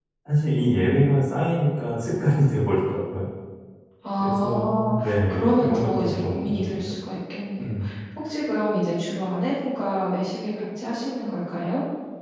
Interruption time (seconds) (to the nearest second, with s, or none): 4 s